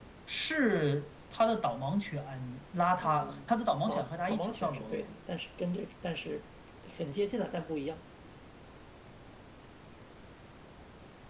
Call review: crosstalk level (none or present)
present